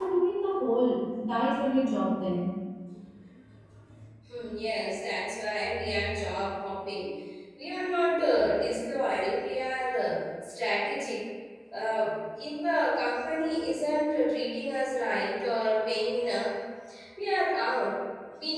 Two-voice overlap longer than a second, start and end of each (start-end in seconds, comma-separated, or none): none